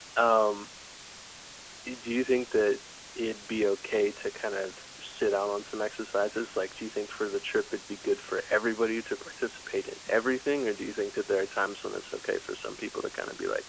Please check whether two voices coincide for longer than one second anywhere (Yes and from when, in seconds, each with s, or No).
No